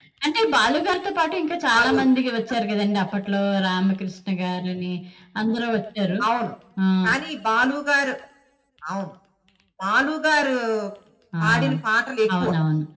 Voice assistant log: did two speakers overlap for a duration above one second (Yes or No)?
No